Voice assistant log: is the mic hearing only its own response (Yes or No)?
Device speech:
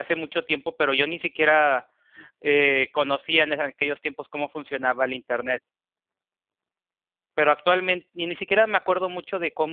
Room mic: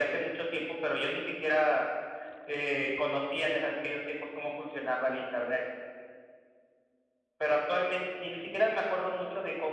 Yes